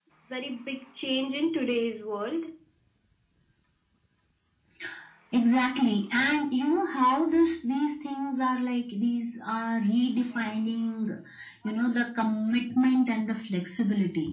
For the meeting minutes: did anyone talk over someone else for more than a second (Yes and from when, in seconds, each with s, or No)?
No